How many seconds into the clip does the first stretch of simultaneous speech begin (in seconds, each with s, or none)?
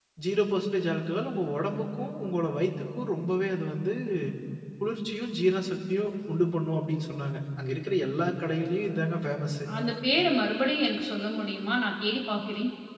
none